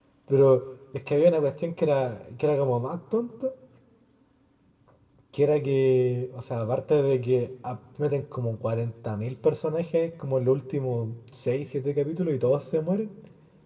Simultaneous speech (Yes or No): No